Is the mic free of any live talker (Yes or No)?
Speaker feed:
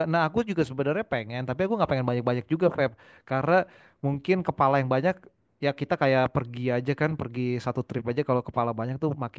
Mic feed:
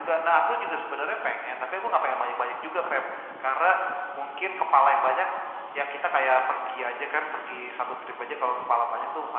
Yes